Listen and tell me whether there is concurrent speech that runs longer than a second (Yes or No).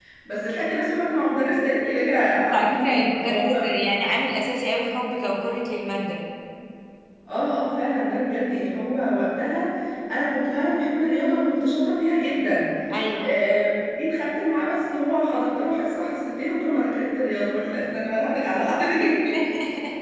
Yes